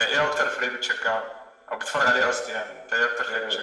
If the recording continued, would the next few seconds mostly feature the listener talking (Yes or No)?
Yes